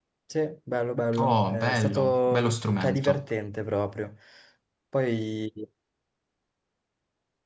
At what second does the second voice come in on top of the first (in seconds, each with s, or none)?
1.2 s